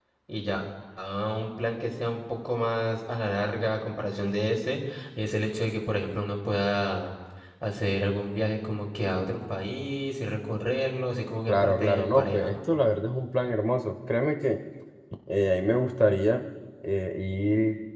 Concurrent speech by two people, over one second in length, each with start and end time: 11.5-12.7

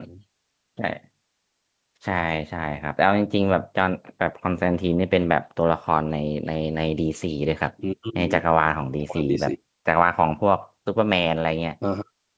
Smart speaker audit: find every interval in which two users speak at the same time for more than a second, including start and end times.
none

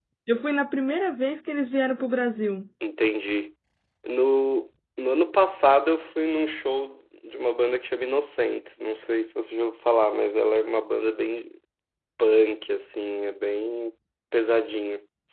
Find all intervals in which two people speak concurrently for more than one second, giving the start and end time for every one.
none

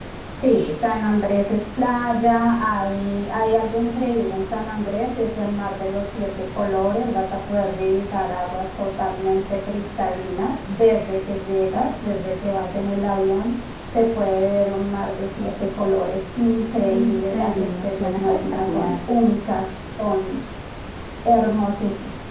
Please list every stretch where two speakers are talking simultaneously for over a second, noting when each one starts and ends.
16.9-18.9

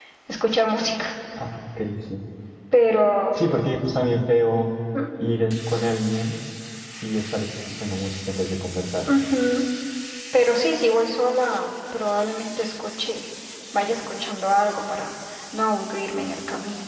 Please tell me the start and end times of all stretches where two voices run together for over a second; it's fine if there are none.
none

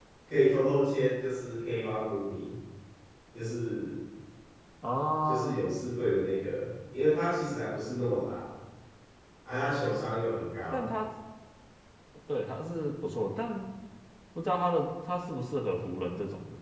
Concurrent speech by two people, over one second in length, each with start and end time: none

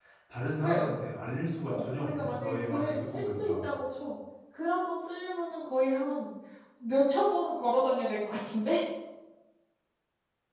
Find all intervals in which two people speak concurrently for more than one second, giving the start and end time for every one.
1.7-3.7

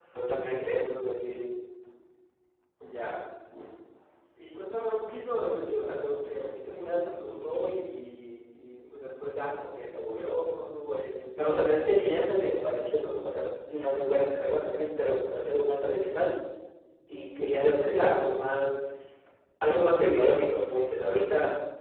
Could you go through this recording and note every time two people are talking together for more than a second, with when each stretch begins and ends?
none

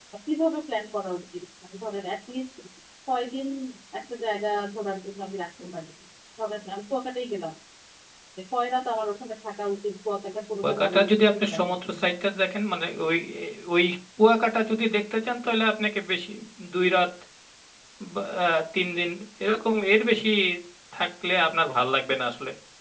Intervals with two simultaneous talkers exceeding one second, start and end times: 10.6-12.0

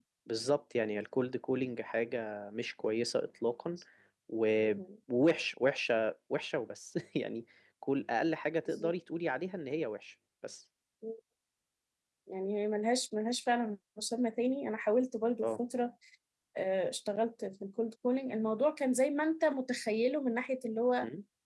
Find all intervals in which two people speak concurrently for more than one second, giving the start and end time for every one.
none

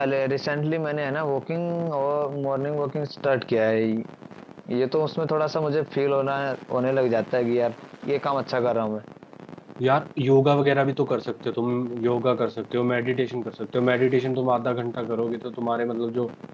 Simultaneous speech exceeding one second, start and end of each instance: none

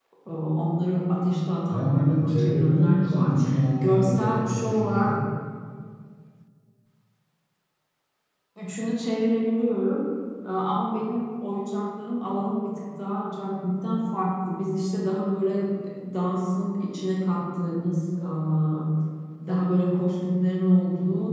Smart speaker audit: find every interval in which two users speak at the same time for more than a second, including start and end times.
1.7-3.3, 3.8-5.2

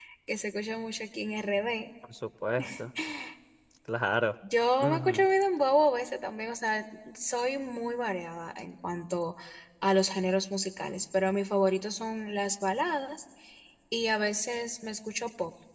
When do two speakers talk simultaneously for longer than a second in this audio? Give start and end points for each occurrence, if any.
none

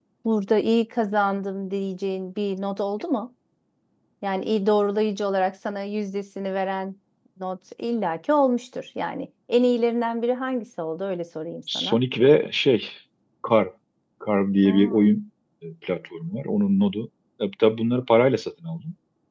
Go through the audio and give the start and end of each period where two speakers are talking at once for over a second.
none

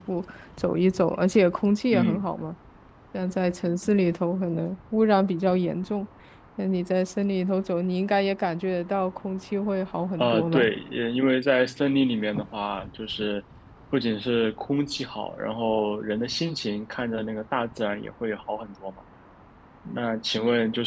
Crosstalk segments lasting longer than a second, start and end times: none

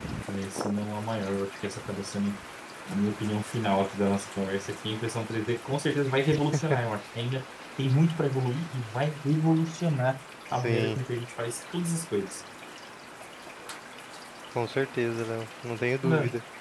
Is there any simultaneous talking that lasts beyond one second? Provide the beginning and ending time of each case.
none

